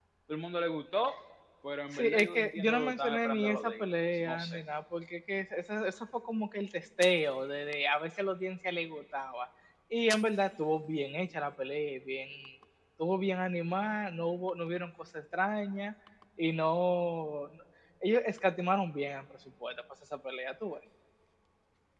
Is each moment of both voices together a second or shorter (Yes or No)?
No